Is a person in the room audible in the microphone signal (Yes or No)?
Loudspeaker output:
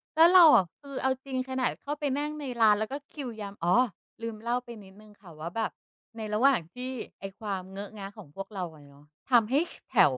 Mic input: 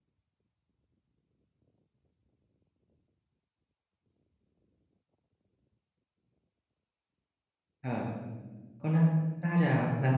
Yes